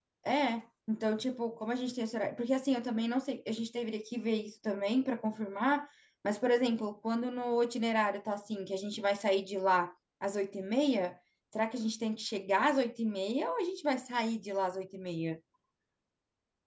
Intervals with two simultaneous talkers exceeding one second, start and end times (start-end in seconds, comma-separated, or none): none